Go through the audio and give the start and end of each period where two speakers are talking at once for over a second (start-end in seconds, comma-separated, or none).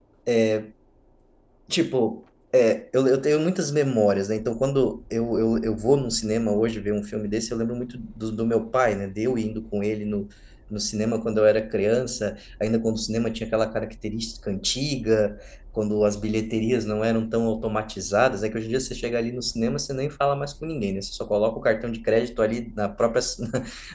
none